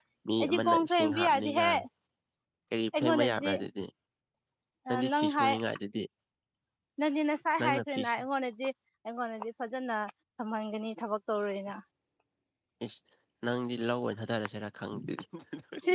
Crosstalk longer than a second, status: present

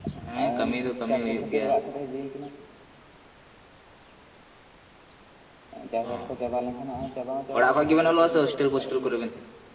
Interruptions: present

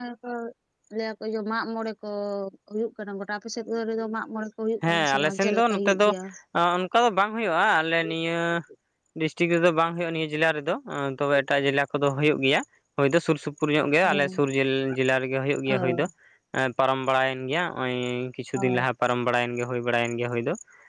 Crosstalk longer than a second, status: present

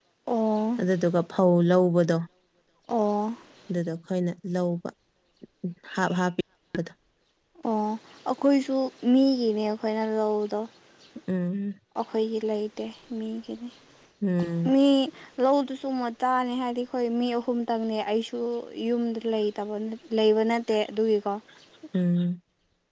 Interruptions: none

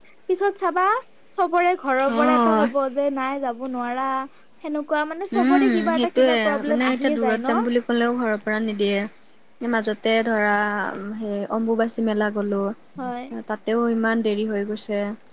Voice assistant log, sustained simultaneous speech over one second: present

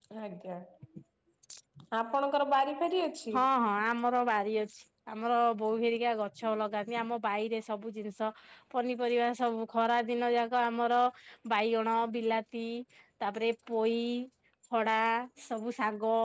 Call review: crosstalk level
none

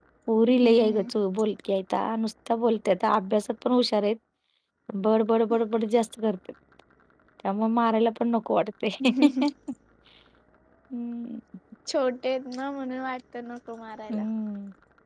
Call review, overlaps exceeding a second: none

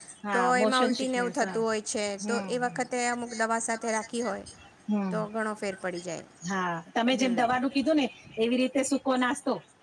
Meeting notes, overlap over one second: present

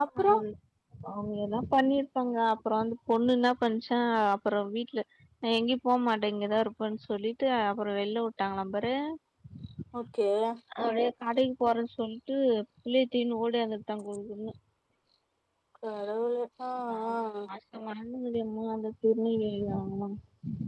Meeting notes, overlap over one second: none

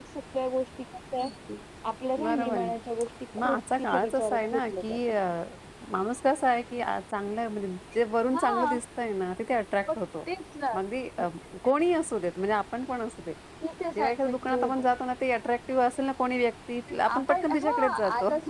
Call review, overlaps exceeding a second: present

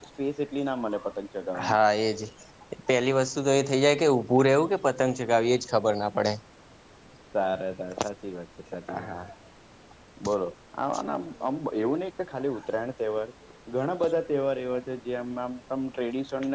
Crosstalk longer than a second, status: none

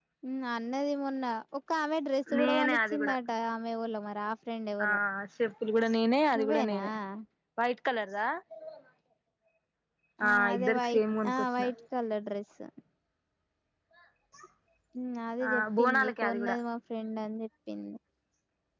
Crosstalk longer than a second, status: present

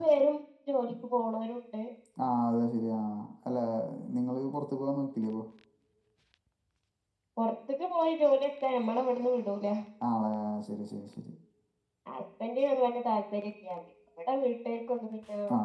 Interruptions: none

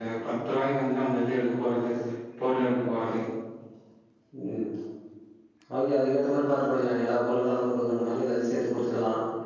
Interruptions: none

